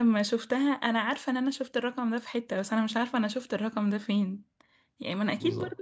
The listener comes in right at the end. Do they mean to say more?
No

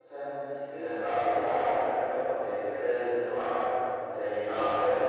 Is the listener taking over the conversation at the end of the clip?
No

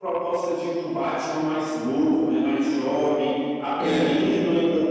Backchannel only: Yes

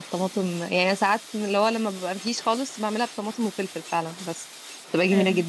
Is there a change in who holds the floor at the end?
Yes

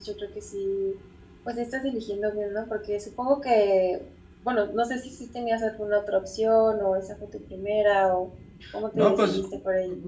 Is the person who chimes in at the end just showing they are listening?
No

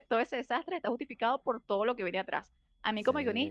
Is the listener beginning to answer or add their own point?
No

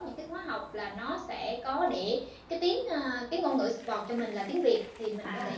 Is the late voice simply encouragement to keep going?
Yes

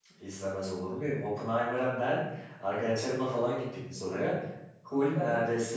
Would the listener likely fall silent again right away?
Yes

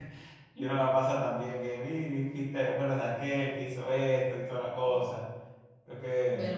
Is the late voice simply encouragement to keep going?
No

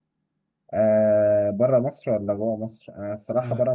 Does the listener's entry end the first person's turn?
No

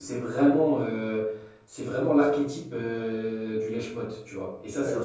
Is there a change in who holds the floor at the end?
Yes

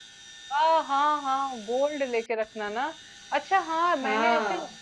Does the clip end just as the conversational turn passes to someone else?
No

